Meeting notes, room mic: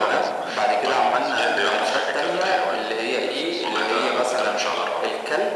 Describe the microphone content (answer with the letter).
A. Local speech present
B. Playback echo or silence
A